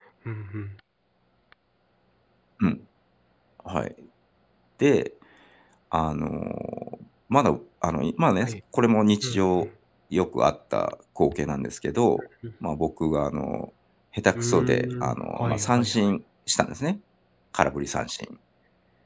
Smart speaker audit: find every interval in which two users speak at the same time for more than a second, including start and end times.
14.3-16.1

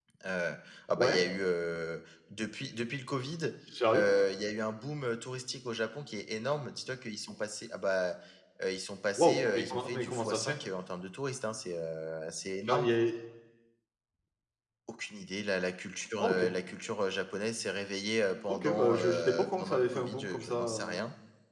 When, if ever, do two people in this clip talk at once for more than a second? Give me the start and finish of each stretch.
9.2-10.6, 18.5-21.0

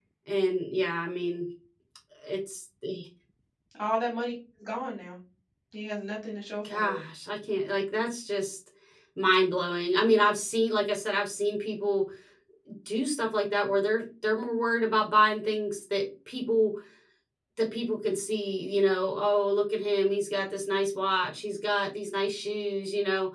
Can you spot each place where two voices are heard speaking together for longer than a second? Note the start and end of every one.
none

